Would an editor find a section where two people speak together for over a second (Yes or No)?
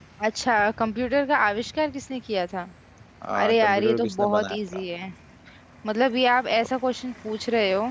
Yes